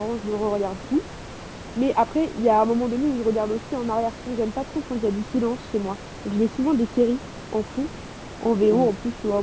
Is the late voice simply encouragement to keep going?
Yes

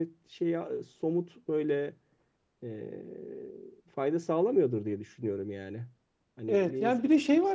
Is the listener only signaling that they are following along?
No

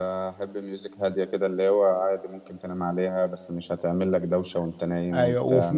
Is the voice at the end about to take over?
Yes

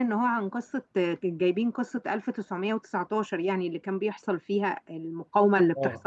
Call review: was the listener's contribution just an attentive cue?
No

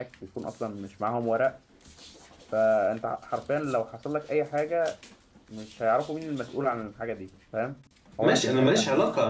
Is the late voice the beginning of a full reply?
Yes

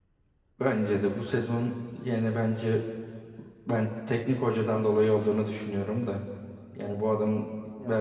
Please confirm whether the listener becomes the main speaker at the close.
Yes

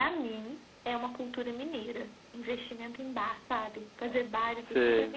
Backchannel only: Yes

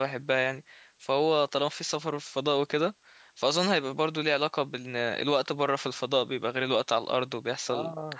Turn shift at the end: Yes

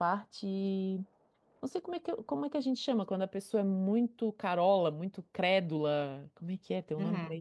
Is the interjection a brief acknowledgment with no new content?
No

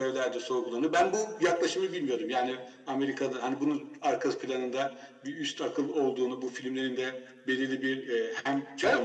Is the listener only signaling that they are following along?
No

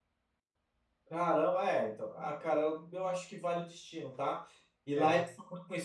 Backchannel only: Yes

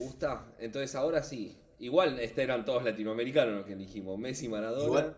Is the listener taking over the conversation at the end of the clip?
Yes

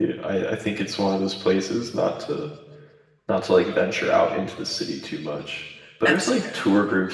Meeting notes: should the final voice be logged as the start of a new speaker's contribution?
No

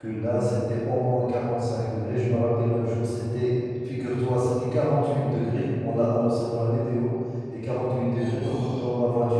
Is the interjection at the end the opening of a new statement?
No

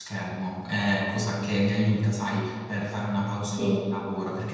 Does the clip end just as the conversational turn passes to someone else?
No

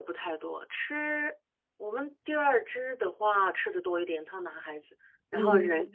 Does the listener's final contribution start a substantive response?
No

